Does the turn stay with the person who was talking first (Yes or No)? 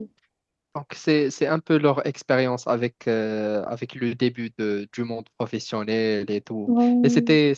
Yes